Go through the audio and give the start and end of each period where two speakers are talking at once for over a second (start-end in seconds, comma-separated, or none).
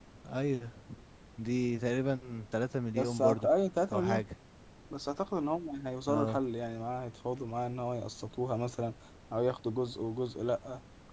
none